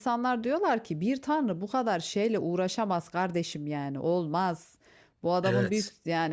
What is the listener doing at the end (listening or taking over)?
listening